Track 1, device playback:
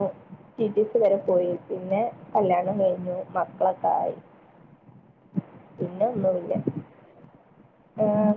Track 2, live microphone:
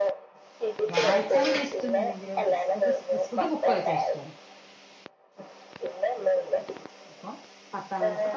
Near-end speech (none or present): present